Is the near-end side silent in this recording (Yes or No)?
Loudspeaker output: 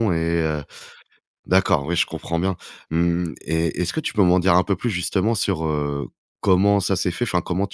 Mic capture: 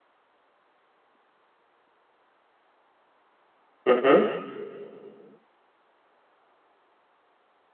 No